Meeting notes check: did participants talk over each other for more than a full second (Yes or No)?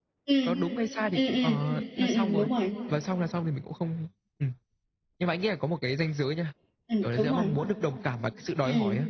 No